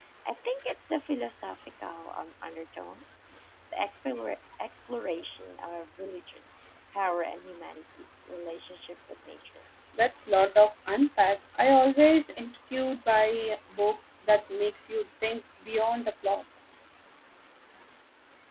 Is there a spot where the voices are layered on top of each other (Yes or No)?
No